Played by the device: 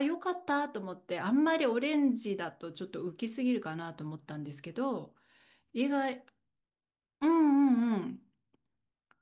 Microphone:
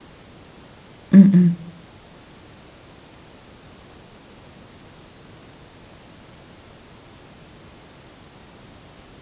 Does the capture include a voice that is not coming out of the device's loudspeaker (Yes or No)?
Yes